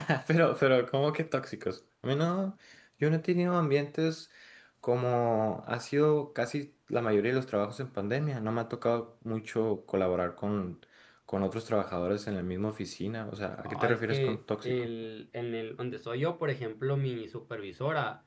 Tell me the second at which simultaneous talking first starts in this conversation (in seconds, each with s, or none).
13.6 s